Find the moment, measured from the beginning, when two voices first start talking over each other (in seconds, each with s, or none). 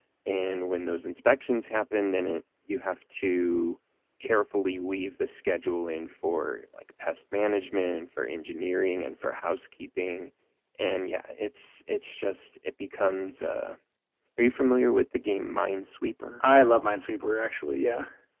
none